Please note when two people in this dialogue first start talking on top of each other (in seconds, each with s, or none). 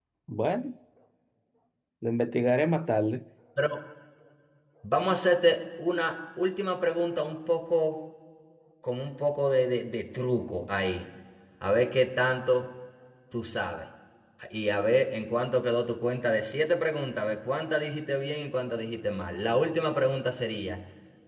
none